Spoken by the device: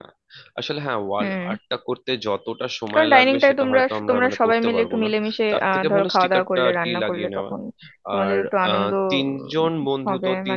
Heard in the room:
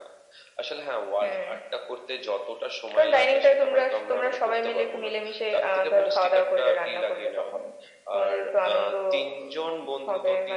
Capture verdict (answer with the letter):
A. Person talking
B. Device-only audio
B